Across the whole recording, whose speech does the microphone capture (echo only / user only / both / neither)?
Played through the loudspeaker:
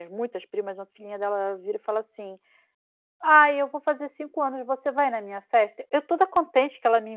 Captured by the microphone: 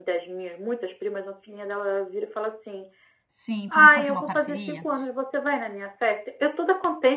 both